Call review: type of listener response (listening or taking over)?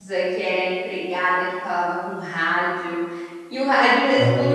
listening